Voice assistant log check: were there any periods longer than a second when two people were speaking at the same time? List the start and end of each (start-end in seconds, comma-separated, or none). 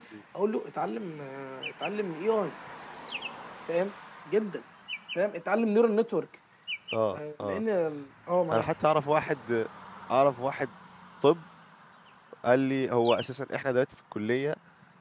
none